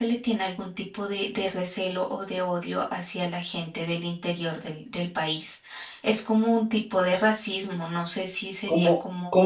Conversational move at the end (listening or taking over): taking over